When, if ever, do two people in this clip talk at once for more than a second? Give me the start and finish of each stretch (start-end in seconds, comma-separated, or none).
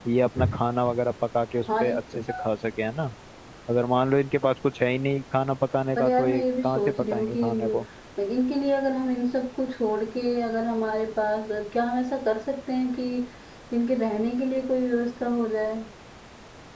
6.0-7.8